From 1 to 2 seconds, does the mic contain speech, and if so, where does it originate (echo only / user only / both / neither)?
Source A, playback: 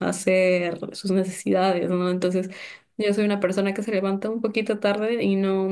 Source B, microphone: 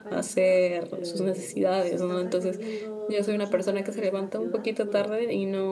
both